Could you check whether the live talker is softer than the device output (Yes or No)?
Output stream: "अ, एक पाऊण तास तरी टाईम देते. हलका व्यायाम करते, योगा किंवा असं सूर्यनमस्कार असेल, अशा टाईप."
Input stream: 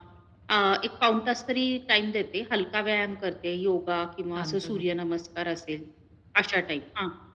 Yes